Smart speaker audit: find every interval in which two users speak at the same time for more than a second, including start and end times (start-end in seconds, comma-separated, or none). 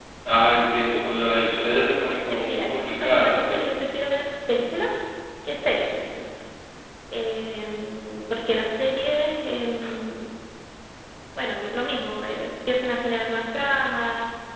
1.7-3.5